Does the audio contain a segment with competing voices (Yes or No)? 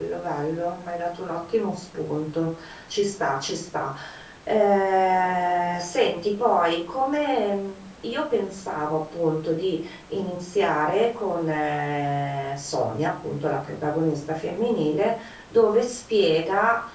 No